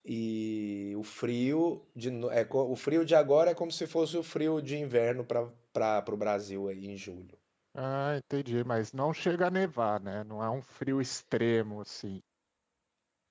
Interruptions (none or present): none